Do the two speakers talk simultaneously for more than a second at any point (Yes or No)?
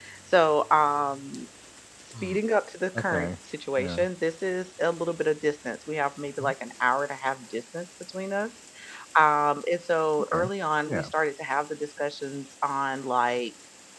No